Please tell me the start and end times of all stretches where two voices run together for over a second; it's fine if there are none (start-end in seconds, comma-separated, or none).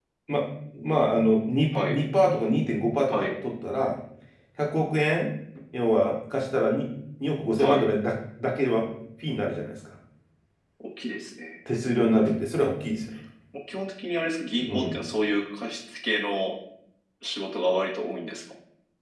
none